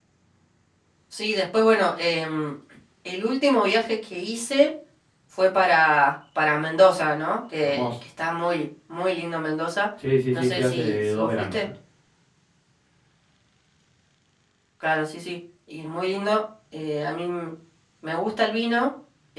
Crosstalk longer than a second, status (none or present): present